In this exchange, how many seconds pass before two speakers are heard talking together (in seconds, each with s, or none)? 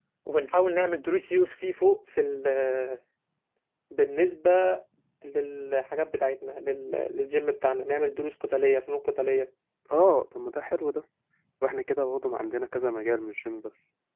none